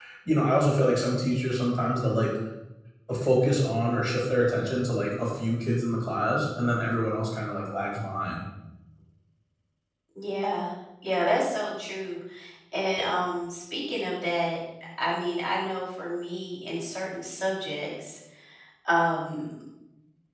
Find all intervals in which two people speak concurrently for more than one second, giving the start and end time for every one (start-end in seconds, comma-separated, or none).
none